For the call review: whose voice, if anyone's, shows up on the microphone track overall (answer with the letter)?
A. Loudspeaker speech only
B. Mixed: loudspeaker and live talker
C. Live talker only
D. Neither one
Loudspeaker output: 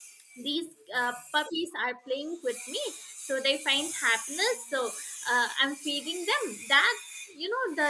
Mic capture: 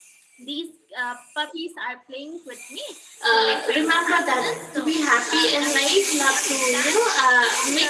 B